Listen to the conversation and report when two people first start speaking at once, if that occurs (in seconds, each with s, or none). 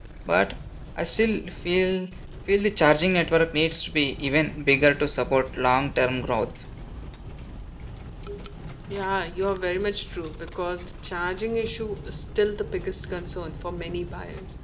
none